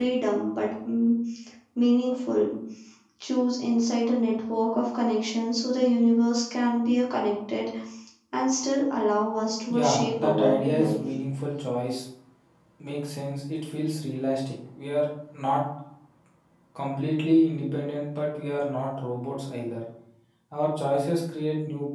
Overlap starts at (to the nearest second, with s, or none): 10 s